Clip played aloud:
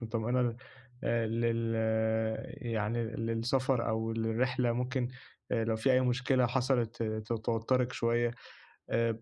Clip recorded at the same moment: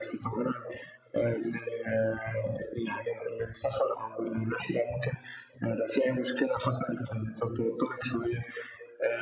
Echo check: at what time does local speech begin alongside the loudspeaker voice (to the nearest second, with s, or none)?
none